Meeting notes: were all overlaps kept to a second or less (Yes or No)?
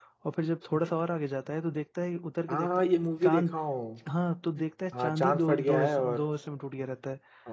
No